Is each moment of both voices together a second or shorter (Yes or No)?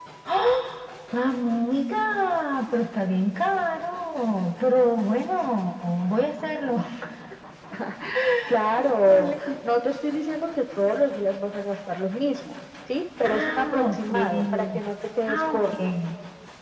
No